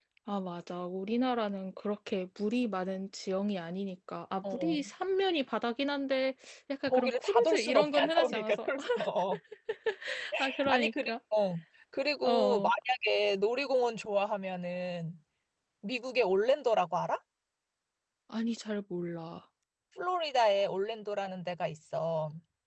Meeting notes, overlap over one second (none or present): present